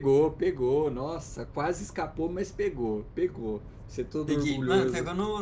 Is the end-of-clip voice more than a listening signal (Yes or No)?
Yes